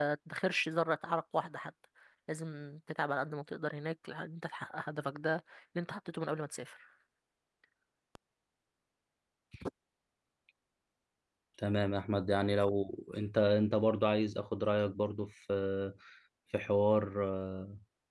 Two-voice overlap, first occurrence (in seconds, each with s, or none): none